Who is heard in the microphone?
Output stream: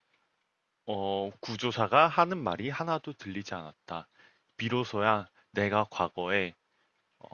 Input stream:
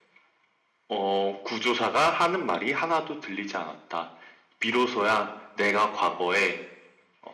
echo only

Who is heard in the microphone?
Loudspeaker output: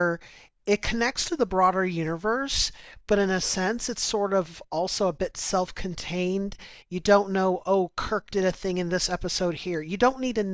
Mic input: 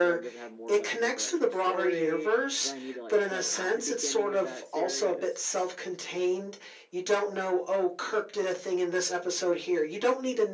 both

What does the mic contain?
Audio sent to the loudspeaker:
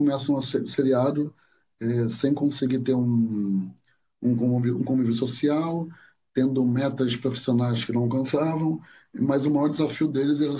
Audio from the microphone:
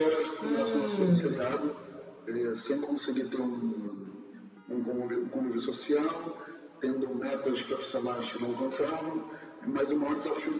both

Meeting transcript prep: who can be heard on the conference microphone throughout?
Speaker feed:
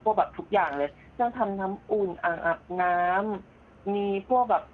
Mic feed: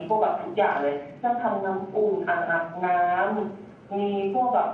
echo only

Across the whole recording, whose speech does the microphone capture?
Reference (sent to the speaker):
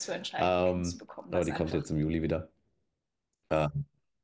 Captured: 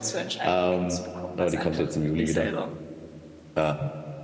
both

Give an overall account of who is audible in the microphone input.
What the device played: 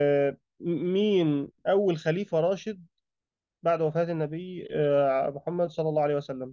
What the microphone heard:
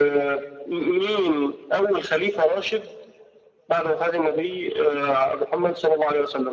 echo only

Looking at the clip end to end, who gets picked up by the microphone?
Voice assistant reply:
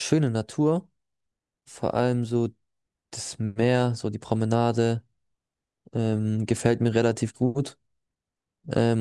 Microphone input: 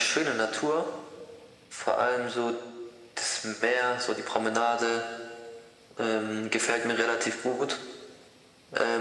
echo only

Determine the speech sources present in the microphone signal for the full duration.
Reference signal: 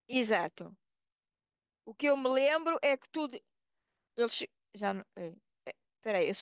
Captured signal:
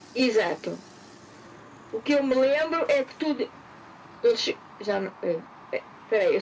echo only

